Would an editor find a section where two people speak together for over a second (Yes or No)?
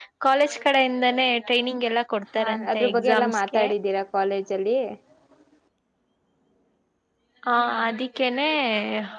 Yes